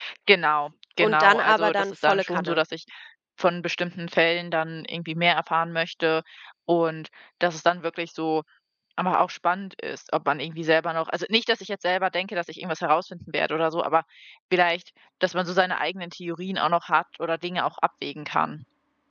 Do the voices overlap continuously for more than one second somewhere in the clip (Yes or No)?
Yes